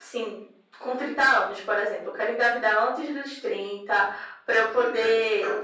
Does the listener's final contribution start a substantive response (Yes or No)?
No